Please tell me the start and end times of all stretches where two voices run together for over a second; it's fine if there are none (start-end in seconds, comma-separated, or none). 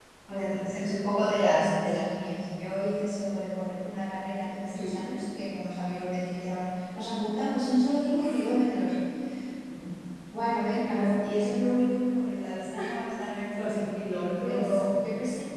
13.5-14.8